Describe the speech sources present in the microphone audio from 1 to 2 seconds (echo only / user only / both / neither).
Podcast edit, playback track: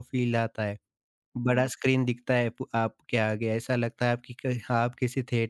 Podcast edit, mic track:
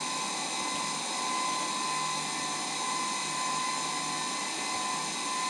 neither